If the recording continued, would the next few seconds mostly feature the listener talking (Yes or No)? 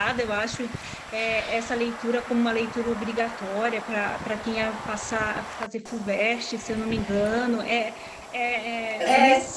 No